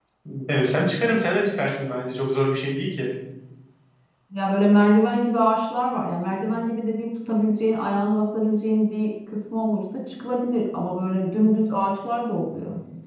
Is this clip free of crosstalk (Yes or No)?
Yes